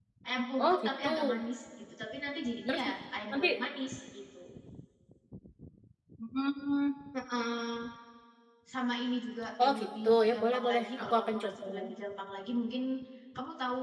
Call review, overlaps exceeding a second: present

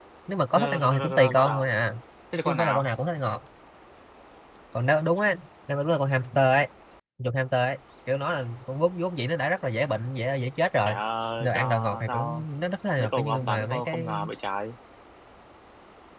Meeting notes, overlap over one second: present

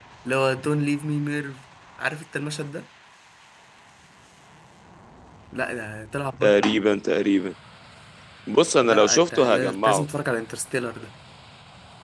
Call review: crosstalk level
present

